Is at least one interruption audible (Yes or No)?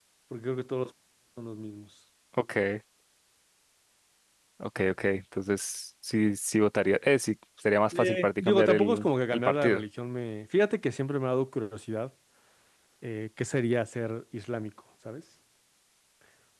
Yes